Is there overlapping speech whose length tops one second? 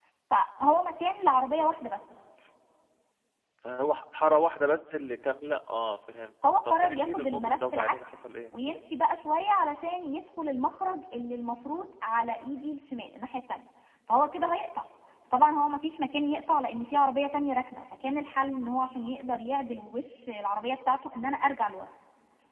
Yes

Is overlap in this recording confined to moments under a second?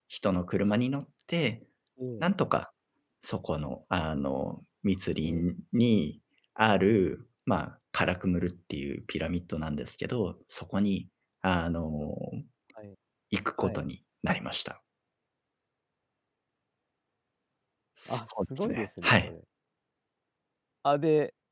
No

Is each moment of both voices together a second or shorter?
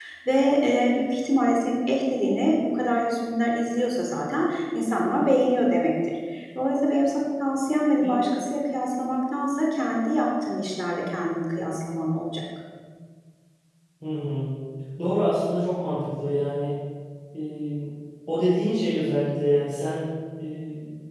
Yes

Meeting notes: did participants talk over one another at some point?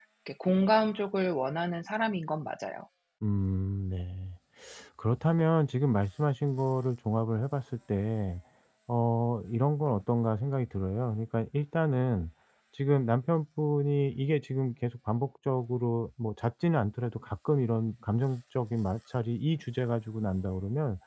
No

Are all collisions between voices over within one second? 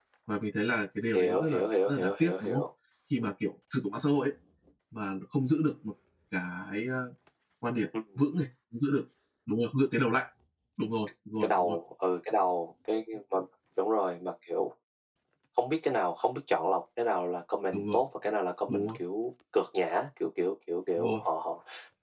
No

